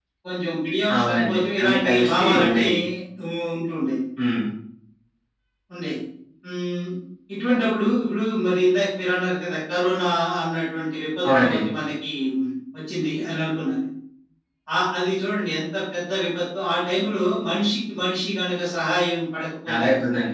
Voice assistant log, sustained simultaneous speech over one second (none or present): present